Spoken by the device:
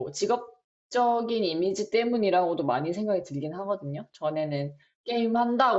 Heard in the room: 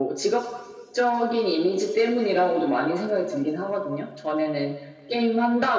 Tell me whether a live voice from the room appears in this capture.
No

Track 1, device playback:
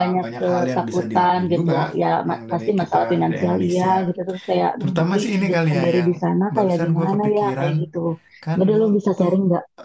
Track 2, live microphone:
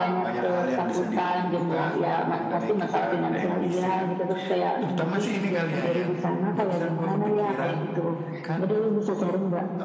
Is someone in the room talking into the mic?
No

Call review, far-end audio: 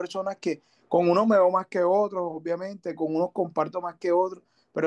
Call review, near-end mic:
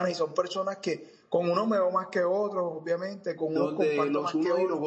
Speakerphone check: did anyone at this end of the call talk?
Yes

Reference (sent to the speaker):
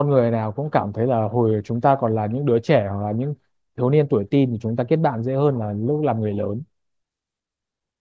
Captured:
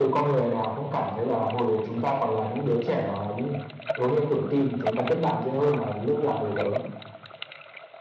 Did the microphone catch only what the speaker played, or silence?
Yes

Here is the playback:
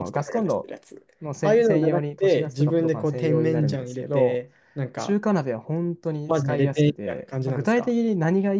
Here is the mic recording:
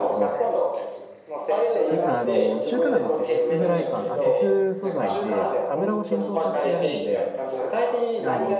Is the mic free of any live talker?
No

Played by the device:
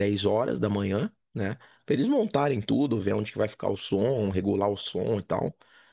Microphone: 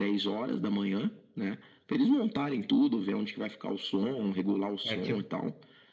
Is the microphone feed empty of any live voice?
No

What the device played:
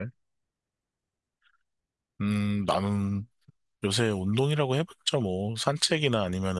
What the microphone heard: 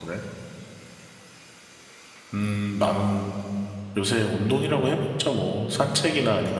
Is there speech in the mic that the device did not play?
No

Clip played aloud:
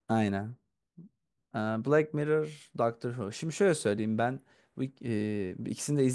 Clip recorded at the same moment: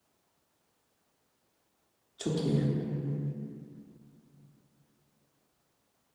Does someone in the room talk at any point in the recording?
Yes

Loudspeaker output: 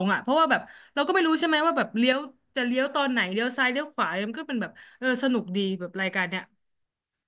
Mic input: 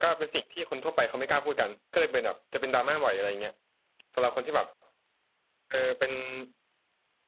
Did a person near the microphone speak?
Yes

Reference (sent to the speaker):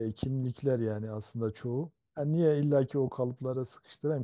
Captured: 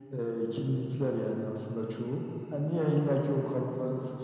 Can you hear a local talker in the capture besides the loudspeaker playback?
No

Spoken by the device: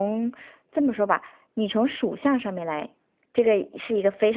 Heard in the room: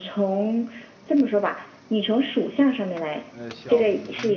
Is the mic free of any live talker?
No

